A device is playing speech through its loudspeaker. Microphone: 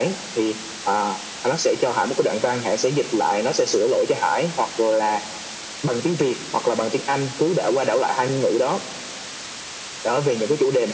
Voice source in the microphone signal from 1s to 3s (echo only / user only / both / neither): echo only